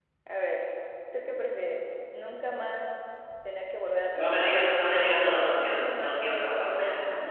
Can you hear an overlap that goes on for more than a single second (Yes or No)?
Yes